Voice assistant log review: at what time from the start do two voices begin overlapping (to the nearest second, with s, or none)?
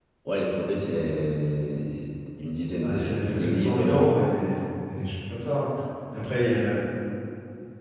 3 s